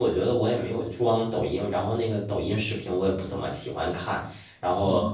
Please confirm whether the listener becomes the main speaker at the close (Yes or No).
No